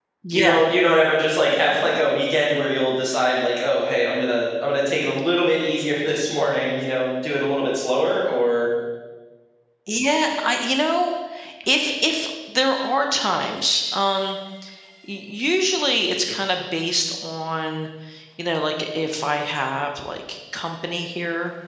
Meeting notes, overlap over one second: none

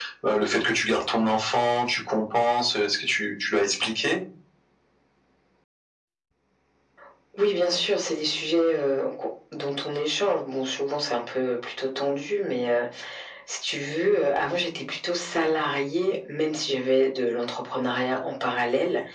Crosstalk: none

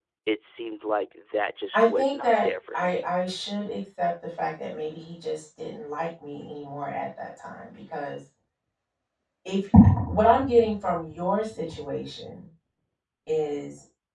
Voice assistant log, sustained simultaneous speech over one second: present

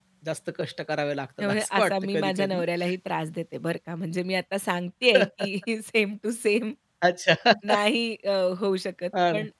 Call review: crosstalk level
present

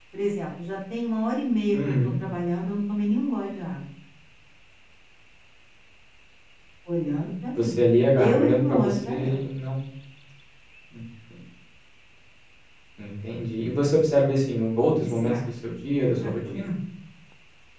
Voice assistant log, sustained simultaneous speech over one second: present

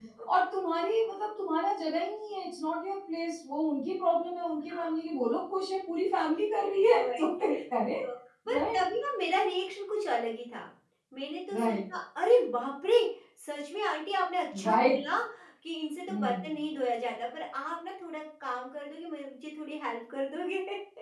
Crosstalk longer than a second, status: none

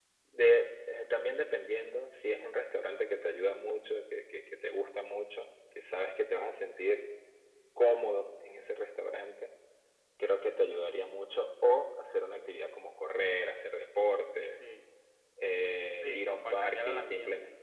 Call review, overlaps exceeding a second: present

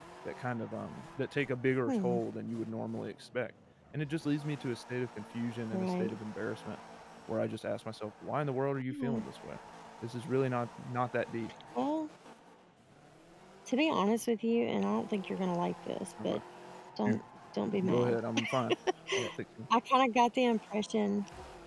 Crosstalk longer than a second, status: none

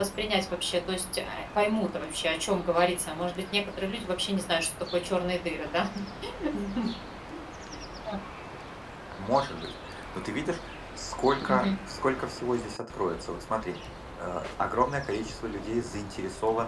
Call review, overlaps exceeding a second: none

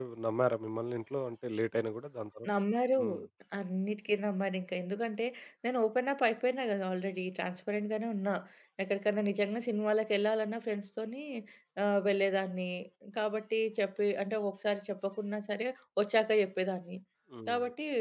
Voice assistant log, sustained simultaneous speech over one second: none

